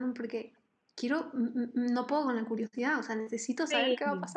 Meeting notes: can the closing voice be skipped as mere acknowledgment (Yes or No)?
No